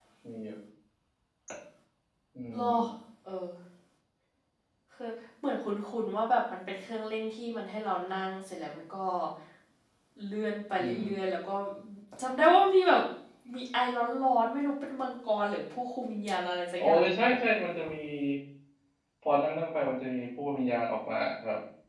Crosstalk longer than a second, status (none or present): none